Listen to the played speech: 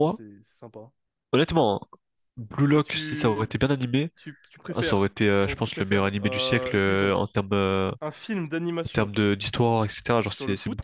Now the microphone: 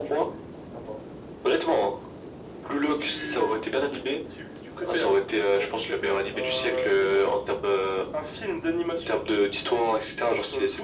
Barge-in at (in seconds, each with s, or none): none